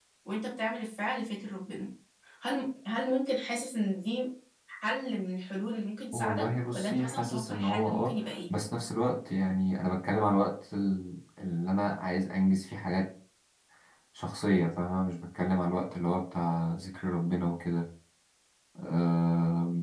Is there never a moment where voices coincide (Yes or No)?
No